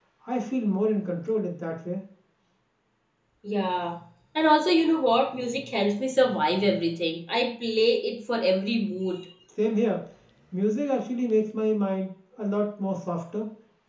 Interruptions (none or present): none